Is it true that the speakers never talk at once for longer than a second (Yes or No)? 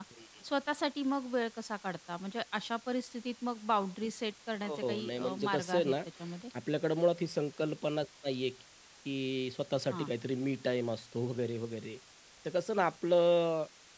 No